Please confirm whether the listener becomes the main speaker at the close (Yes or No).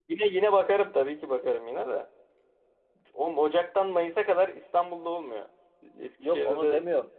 Yes